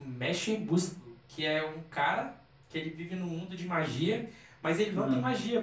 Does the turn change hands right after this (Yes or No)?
No